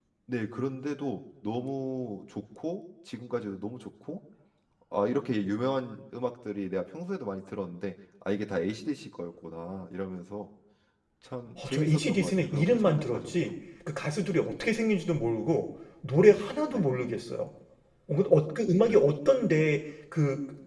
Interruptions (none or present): present